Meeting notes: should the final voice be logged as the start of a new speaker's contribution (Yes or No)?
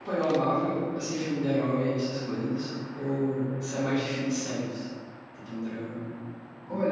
Yes